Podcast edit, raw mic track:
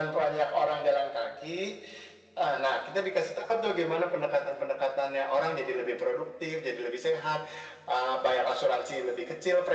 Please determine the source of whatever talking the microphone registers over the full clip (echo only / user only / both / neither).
echo only